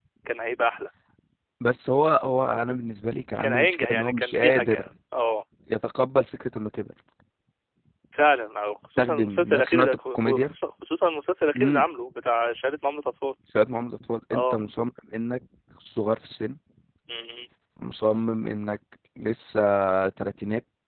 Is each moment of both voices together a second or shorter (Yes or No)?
No